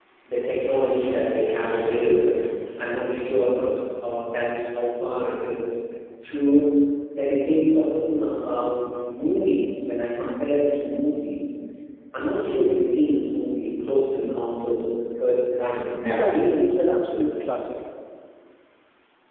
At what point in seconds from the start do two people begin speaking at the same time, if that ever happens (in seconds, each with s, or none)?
16.0 s